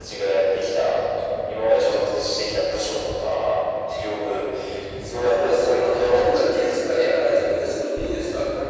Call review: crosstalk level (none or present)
present